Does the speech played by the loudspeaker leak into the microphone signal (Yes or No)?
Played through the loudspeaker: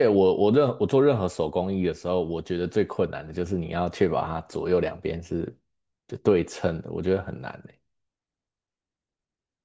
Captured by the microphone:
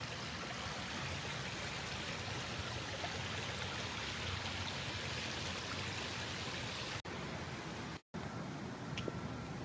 No